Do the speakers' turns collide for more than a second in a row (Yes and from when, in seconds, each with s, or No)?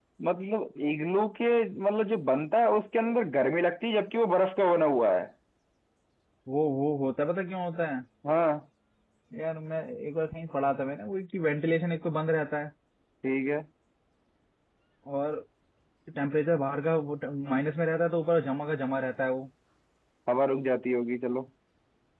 No